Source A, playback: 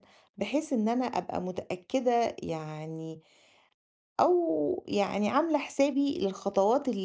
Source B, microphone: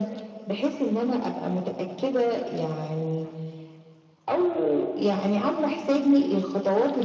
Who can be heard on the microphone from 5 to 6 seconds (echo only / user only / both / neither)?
echo only